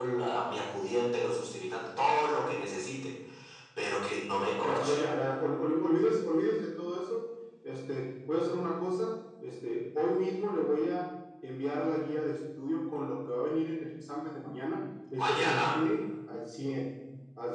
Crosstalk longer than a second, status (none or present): none